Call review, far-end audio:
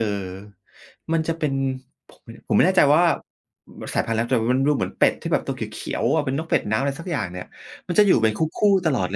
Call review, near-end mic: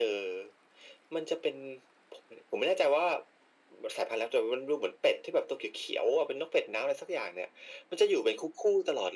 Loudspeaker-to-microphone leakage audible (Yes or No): Yes